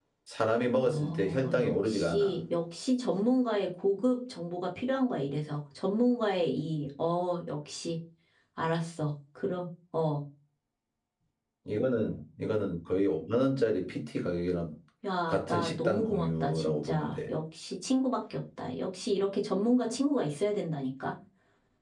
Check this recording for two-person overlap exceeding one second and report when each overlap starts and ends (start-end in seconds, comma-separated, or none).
0.8-2.3, 15.2-17.3